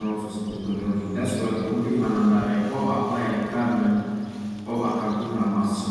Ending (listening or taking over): listening